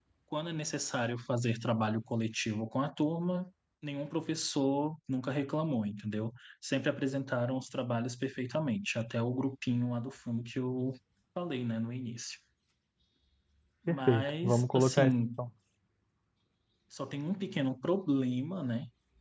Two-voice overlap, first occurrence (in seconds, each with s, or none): 13.9 s